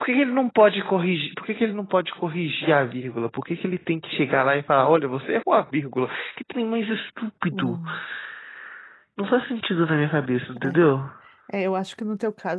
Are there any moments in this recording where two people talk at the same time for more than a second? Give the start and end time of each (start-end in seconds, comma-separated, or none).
none